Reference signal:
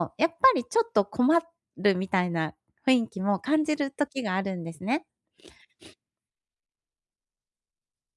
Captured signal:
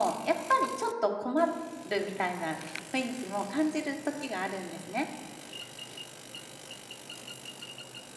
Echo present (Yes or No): Yes